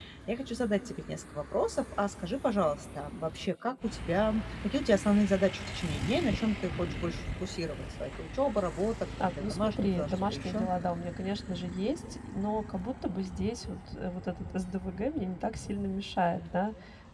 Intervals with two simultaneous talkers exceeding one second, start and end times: 9.2-10.6

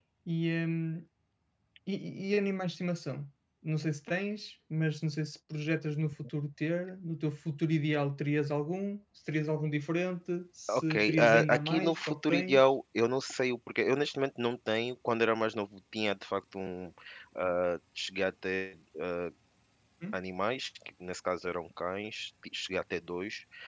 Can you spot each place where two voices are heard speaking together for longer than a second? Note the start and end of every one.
10.7-12.7

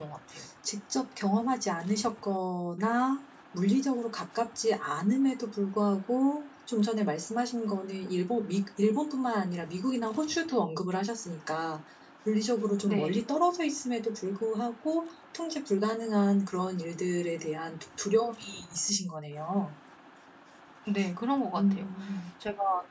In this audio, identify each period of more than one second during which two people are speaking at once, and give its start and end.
none

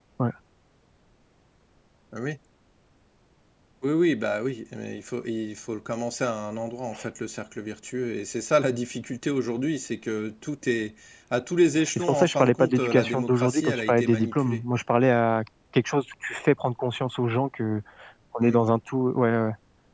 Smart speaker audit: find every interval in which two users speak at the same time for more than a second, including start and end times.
12.0-14.6

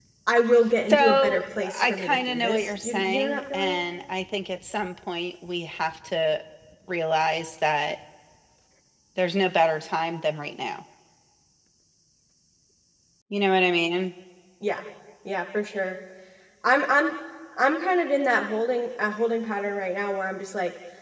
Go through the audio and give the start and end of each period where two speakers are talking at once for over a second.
0.9-3.8

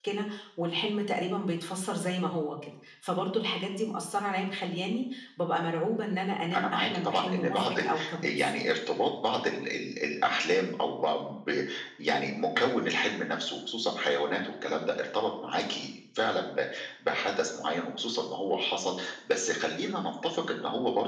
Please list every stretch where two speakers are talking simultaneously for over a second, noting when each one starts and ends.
6.5-8.5

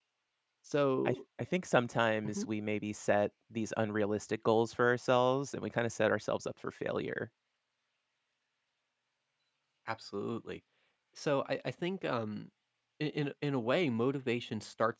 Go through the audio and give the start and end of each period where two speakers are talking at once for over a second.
none

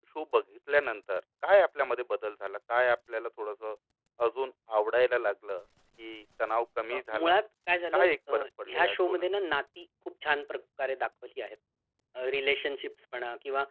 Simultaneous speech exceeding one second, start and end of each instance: 7.9-9.3

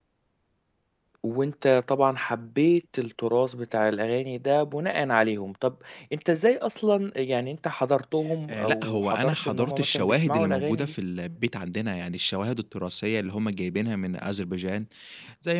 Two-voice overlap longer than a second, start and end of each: 8.5-10.9

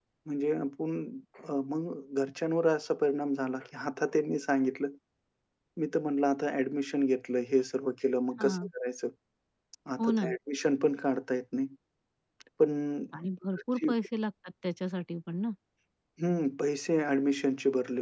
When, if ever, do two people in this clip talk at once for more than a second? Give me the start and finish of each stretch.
none

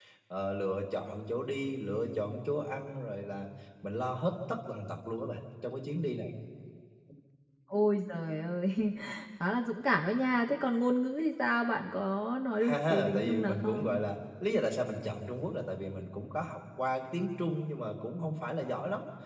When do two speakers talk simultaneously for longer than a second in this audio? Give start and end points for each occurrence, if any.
12.6-14.0

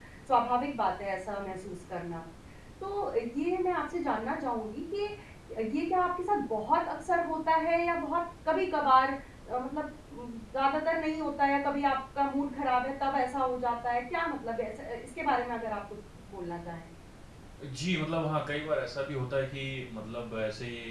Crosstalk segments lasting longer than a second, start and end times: none

